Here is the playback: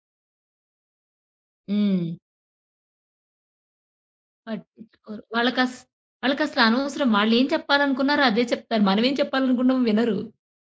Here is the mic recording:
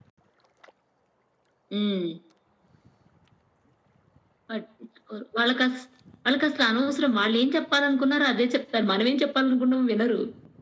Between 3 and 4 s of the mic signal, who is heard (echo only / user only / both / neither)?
neither